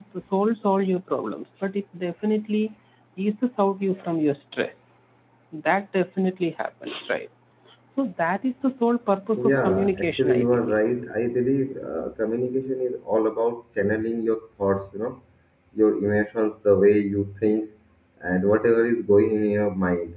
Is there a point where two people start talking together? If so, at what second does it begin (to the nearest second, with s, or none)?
9 s